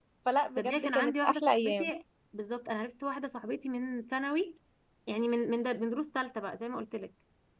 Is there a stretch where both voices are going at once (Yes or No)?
Yes